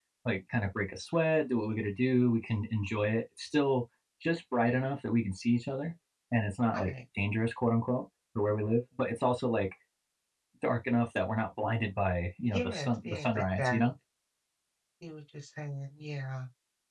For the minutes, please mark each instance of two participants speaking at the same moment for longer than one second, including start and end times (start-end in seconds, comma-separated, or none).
12.4-13.8